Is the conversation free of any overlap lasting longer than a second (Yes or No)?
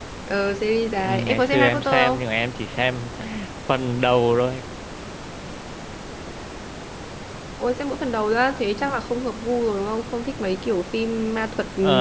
No